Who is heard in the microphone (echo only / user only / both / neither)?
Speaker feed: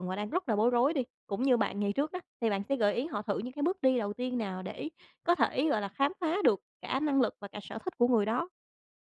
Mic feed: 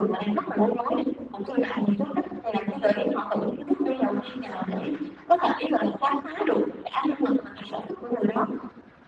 echo only